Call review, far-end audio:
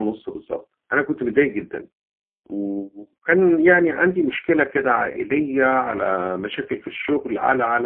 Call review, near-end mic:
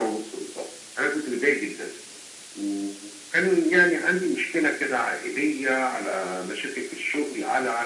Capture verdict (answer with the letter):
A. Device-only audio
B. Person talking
A